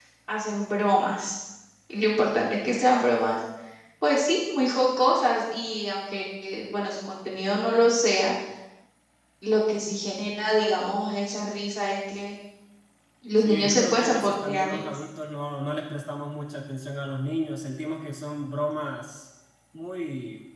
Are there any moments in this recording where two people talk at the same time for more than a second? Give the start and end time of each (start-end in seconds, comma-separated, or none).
13.4-15.0